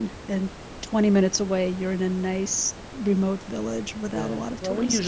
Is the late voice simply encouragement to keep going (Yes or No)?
No